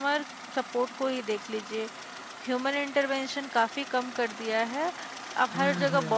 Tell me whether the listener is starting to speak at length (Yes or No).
No